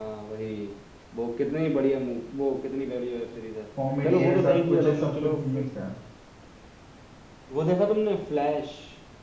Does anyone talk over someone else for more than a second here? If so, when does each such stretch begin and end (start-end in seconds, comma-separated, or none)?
4.0-5.6